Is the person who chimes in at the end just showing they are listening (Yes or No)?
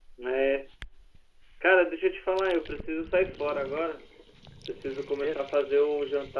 Yes